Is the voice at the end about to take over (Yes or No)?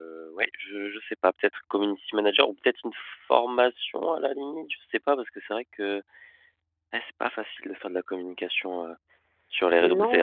Yes